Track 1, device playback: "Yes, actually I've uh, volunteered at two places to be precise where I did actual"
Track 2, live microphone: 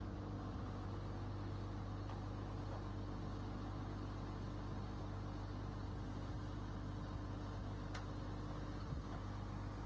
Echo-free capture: Yes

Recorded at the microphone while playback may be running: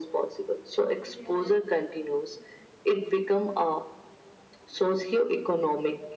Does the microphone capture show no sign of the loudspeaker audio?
No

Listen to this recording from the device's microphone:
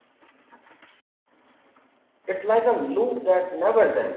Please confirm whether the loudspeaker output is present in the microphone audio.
No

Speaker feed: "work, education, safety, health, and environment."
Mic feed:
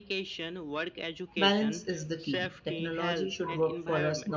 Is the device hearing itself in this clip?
Yes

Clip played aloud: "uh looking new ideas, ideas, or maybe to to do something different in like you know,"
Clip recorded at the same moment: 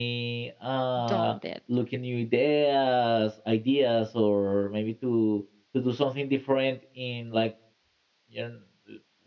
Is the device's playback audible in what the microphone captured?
Yes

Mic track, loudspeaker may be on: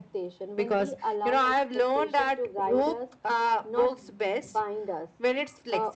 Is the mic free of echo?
No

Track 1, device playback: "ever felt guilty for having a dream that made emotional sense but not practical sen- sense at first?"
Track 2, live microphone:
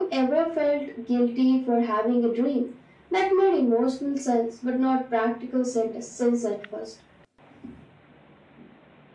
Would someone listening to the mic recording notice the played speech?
Yes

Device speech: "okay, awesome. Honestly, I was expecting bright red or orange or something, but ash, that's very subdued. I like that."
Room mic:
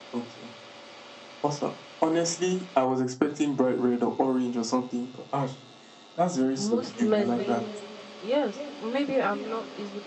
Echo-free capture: No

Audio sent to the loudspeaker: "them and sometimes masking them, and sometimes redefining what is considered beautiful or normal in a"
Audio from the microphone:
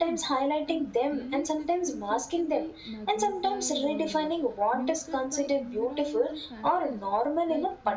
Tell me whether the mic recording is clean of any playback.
No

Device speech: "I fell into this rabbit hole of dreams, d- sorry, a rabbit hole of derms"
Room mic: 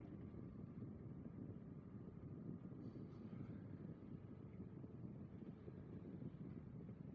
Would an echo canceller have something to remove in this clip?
No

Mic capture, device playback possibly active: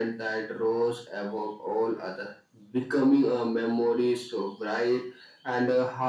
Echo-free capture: No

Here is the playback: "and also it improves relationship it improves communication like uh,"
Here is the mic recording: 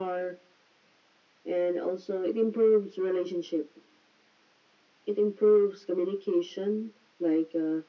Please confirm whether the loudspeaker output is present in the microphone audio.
Yes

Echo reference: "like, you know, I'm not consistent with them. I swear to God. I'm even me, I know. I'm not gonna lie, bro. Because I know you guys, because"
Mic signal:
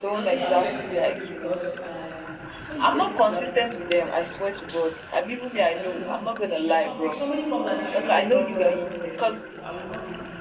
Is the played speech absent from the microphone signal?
No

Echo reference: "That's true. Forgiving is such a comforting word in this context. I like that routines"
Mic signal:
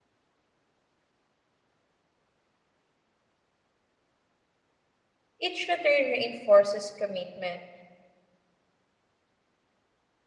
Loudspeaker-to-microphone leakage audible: No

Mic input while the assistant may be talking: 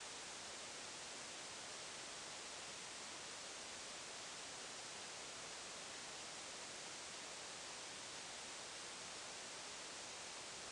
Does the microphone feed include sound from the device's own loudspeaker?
No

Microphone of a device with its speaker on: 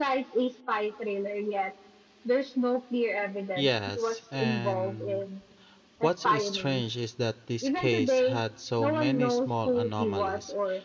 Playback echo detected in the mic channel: Yes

